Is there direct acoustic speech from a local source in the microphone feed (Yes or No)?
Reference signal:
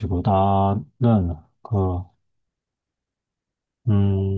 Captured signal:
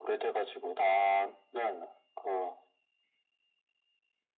No